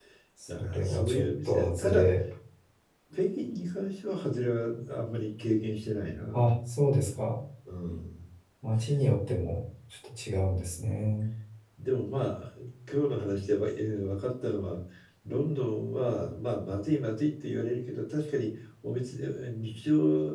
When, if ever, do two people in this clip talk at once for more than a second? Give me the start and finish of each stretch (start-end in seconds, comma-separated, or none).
0.6-2.1